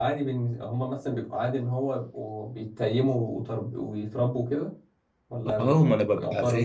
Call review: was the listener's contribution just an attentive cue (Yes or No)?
No